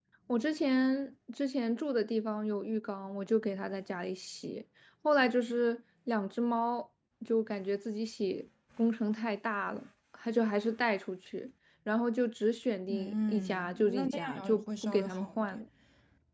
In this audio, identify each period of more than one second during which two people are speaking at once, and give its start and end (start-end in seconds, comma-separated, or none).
12.9-15.6